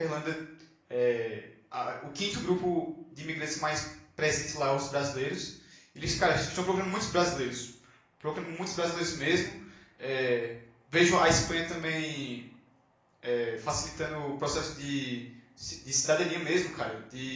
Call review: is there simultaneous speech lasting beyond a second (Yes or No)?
No